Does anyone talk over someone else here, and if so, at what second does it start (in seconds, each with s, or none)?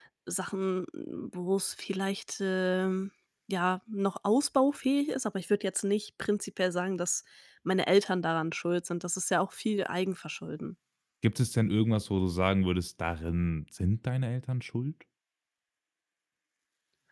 none